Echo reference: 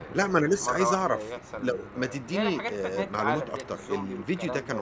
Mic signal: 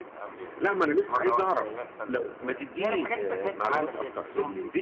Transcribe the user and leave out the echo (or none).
none